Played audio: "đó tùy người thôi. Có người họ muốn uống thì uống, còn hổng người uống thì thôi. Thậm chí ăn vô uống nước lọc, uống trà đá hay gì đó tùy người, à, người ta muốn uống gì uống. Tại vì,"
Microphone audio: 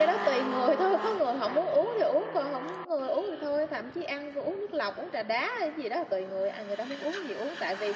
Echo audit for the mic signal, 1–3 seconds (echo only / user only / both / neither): echo only